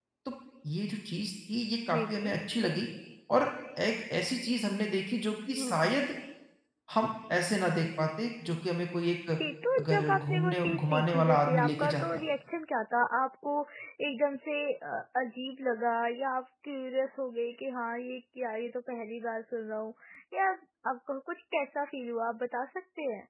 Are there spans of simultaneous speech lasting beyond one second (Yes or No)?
Yes